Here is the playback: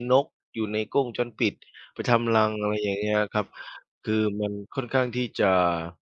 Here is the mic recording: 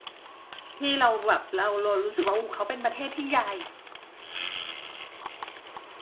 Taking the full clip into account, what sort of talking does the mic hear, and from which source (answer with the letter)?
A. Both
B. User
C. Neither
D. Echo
B